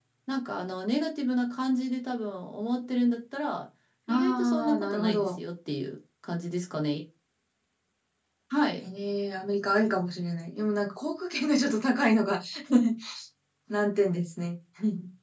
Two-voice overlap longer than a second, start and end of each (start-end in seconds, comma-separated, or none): 4.1-5.3